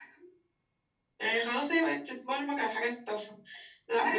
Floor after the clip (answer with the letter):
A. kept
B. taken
A